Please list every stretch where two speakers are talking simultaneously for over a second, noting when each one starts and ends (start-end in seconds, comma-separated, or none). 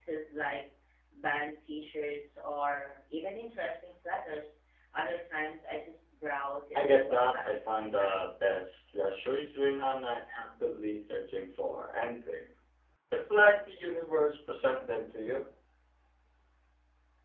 6.8-8.3